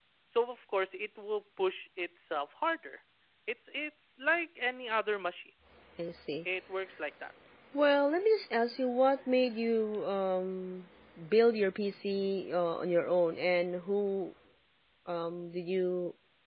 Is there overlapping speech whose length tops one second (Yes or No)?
No